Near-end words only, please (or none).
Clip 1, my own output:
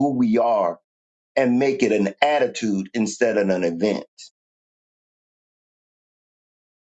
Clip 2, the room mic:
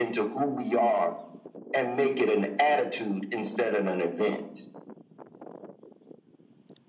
none